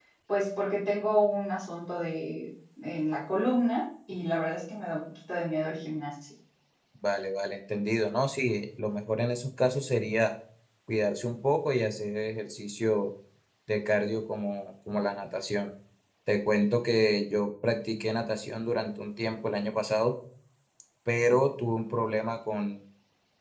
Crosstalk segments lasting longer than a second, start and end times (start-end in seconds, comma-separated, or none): none